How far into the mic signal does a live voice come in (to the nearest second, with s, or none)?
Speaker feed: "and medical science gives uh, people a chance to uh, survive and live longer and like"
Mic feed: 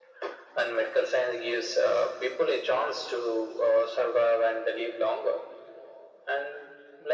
none